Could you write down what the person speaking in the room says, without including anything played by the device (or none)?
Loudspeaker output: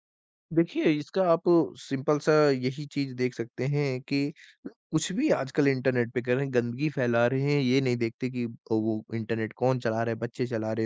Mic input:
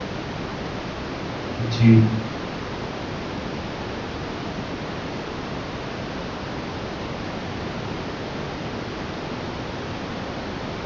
जी,